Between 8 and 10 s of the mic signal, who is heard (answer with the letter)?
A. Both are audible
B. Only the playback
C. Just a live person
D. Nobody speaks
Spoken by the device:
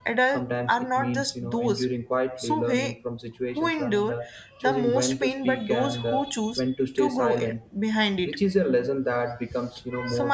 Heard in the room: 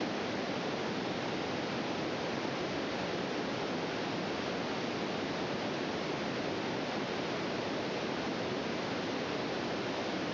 D